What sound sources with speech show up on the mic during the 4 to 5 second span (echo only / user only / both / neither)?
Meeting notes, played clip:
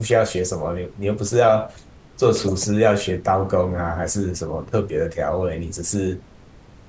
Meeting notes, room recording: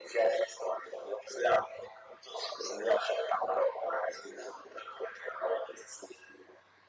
echo only